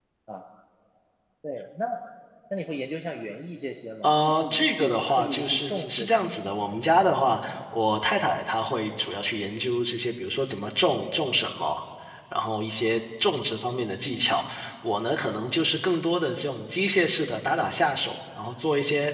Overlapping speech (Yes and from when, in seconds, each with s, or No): Yes, from 4.0 s